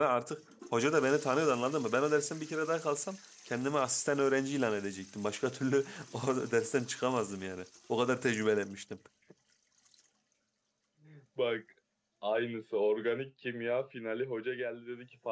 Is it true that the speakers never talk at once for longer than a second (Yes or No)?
Yes